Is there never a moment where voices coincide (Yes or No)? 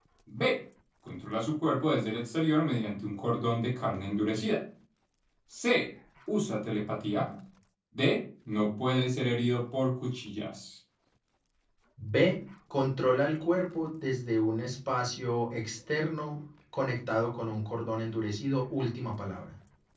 Yes